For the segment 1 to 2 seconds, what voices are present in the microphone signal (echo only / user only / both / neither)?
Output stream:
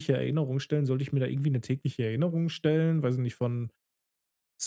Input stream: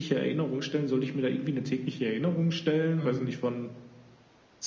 echo only